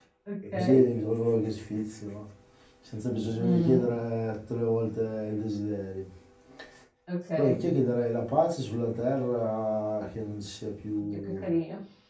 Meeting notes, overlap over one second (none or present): none